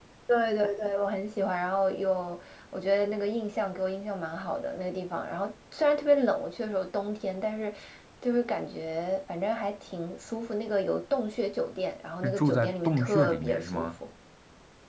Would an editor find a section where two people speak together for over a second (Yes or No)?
Yes